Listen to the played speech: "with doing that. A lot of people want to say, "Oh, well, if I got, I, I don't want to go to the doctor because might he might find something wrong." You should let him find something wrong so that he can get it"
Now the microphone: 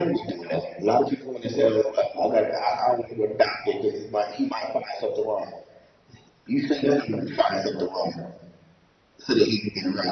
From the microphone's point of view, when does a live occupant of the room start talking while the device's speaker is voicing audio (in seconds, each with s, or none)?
none